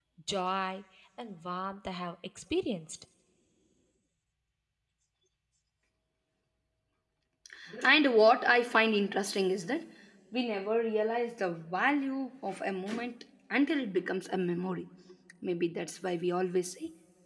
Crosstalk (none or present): none